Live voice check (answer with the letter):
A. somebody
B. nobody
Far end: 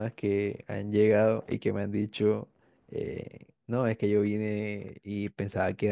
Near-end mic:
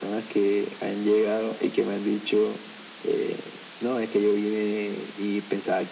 B